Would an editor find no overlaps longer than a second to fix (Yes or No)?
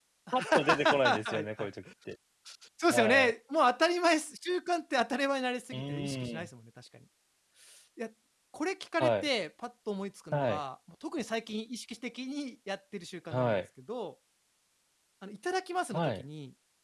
No